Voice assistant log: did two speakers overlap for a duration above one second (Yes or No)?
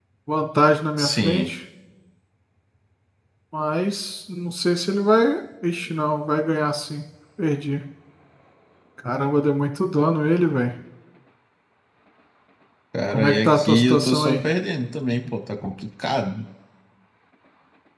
Yes